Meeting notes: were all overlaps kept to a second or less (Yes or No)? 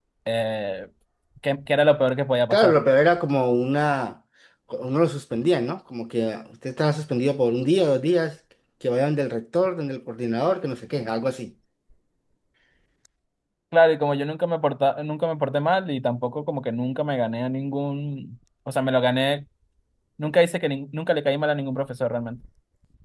Yes